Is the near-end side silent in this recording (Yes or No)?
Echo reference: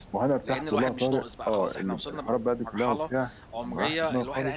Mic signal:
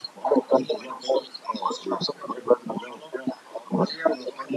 Yes